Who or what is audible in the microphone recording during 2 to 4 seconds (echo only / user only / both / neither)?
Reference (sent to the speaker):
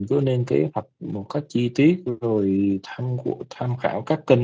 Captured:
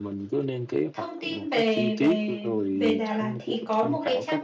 both